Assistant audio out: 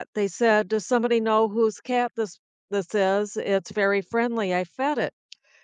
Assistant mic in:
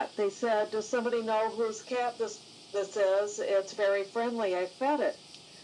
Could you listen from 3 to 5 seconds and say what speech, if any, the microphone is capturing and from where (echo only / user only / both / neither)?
echo only